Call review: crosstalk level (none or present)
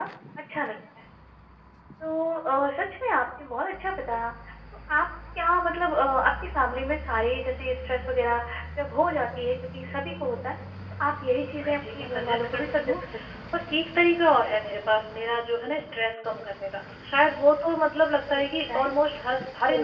present